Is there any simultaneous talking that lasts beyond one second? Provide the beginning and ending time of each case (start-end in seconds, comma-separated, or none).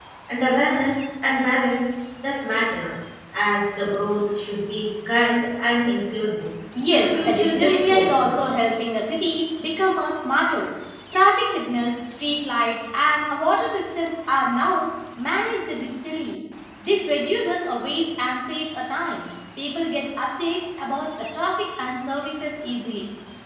6.8-8.4